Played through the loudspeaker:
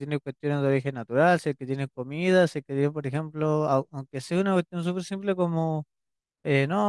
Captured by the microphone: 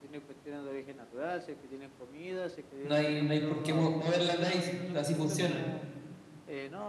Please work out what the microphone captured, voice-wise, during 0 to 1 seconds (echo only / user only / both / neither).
echo only